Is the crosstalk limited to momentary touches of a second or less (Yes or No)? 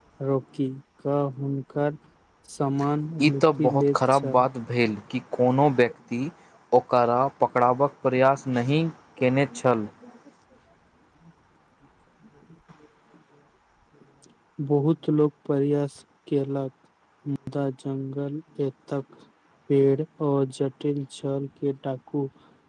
No